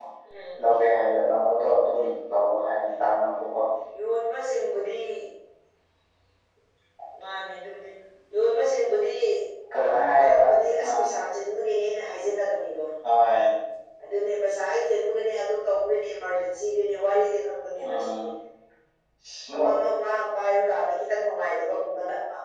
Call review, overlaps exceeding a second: none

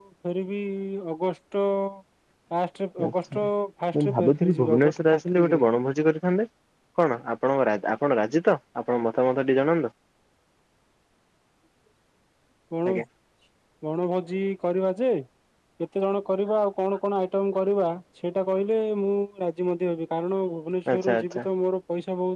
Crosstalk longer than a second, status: present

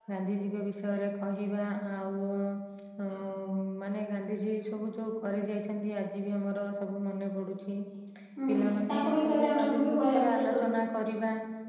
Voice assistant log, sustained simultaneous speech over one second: present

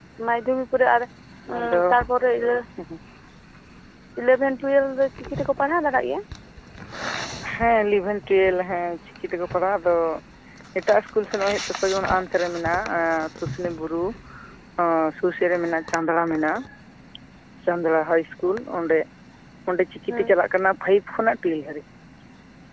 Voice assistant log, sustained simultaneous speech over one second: none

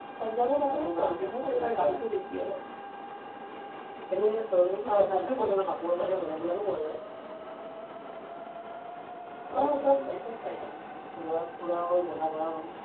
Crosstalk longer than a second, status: present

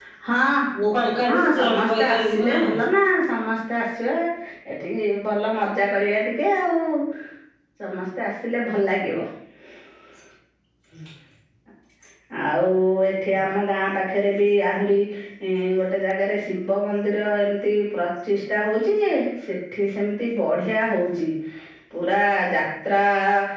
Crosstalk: present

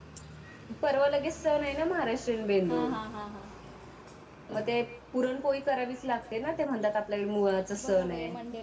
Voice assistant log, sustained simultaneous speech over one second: none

